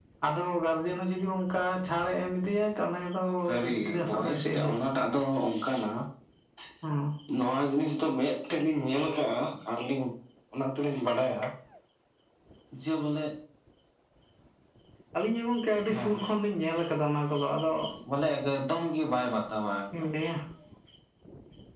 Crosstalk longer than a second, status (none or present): present